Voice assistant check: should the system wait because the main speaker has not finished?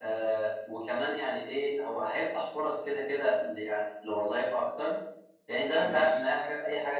Yes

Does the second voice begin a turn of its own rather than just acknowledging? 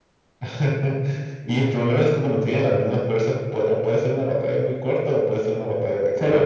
Yes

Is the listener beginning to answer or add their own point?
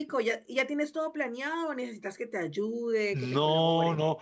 Yes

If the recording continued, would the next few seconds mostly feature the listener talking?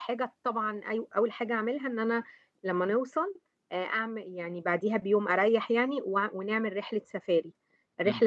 No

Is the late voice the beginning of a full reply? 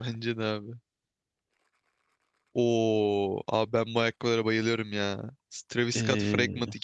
No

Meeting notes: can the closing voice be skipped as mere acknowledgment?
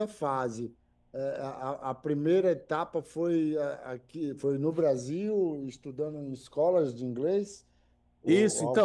No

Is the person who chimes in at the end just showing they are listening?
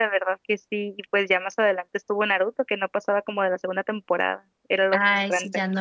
No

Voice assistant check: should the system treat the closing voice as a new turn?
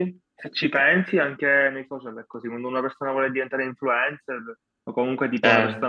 No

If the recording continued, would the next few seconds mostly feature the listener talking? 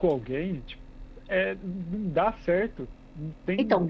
Yes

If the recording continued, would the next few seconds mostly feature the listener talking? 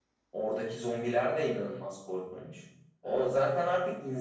No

